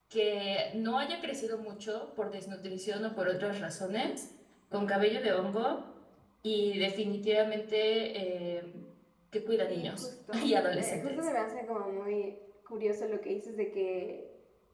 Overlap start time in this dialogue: 9.7 s

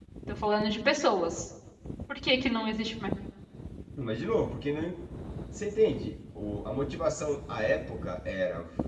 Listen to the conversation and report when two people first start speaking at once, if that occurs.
none

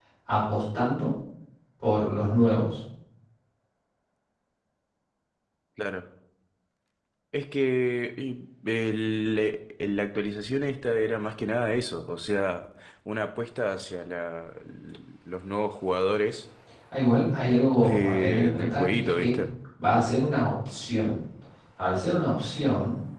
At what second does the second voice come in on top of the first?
17.8 s

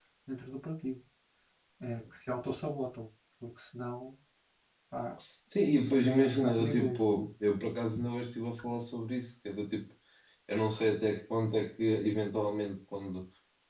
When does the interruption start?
5.8 s

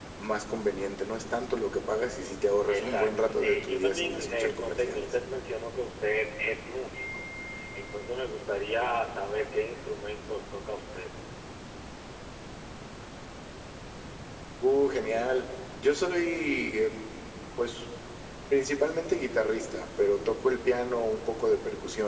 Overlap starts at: 2.7 s

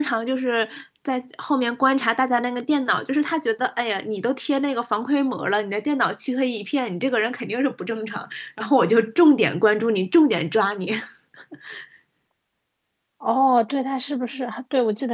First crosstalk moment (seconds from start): none

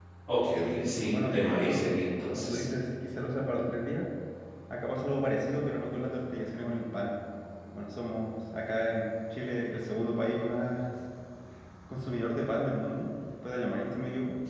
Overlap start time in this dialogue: 0.6 s

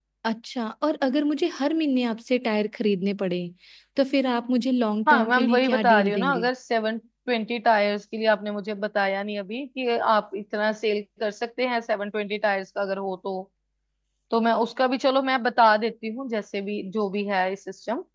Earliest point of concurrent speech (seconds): 5.1 s

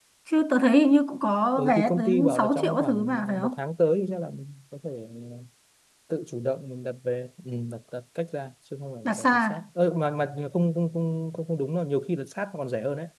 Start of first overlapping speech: 1.6 s

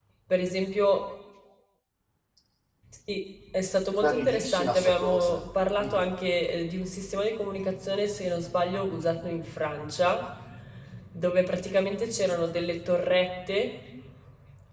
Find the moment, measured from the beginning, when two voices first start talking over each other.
4.0 s

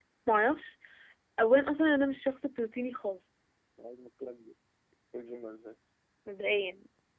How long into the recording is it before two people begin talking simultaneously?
none

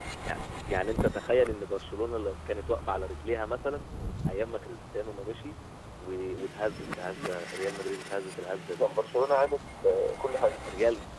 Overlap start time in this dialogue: none

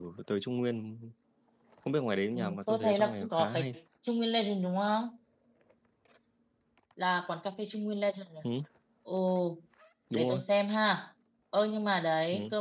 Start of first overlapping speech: 2.3 s

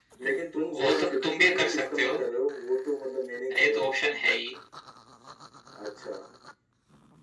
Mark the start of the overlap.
0.6 s

